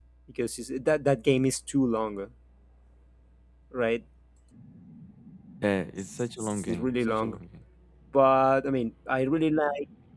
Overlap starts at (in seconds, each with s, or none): 6.0 s